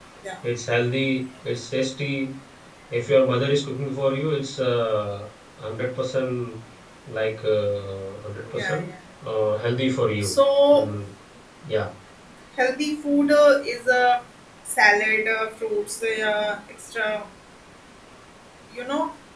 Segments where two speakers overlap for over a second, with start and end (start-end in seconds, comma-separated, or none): none